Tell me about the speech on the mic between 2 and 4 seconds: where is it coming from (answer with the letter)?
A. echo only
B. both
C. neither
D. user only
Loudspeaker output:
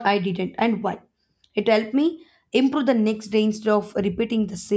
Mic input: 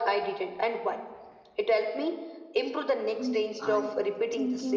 B